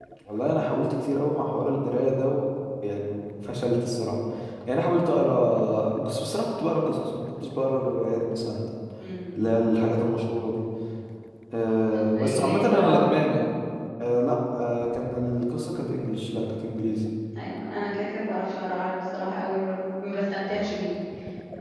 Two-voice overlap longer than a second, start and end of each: 11.9-13.2

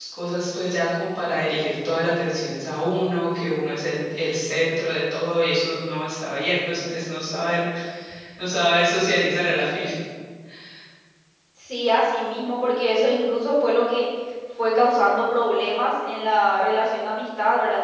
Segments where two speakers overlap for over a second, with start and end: none

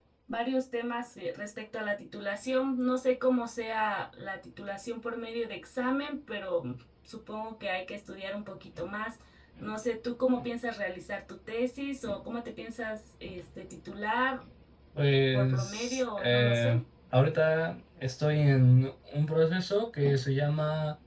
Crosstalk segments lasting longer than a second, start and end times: 15.3-16.8

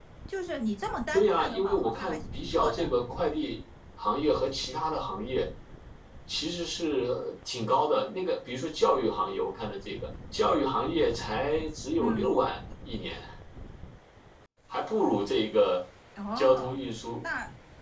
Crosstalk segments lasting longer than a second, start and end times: 1.1-2.9

